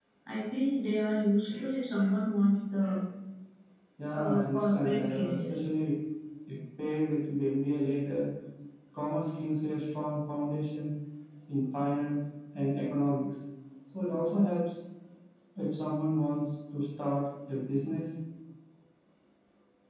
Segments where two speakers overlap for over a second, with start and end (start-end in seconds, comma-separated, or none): 4.1-5.5